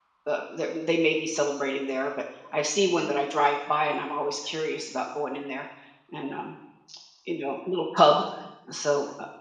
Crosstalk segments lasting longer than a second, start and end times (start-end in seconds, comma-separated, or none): none